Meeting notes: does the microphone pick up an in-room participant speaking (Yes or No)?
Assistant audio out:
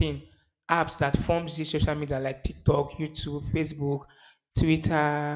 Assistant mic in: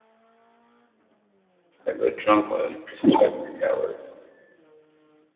Yes